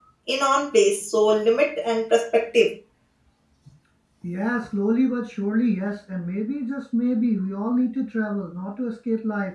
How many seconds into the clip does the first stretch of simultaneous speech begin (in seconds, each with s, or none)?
none